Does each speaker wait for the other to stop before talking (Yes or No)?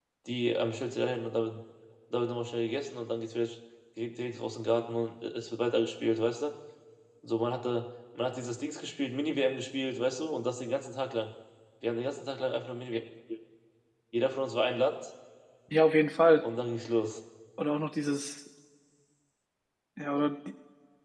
Yes